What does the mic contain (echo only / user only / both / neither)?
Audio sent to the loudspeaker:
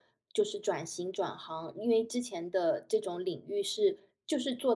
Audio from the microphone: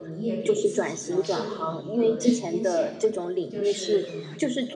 both